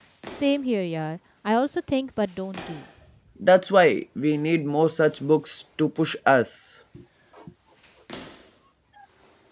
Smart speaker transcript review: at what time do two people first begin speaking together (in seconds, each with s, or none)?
none